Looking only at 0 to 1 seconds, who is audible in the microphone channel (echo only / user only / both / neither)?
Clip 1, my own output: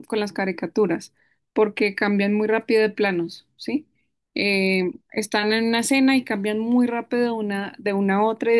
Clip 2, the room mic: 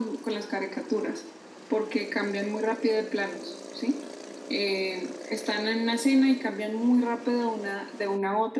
echo only